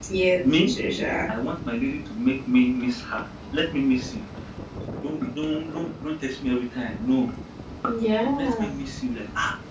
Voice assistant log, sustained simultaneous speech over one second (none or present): none